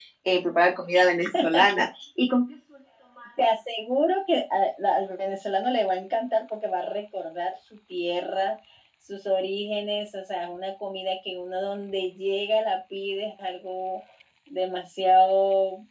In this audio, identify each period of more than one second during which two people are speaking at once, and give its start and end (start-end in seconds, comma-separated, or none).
none